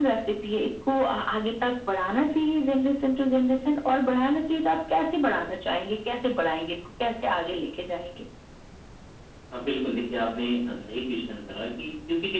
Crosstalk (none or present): none